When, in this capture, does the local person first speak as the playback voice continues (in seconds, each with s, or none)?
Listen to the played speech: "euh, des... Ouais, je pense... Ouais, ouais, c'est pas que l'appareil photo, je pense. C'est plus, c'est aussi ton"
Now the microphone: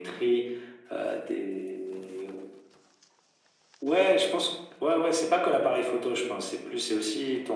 none